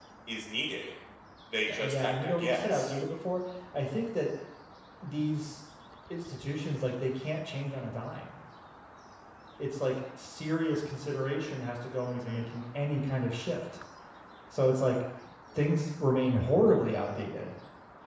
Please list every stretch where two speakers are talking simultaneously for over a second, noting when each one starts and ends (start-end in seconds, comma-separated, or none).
1.7-2.9